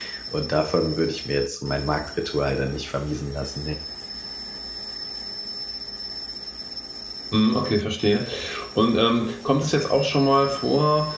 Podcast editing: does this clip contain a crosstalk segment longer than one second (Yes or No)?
No